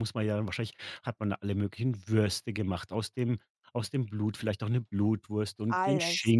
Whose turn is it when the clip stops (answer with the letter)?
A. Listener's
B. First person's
B